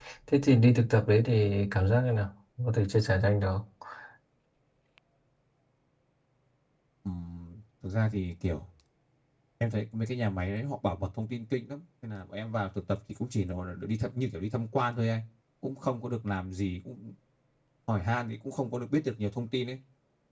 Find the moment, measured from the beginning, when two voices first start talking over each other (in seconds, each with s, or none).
none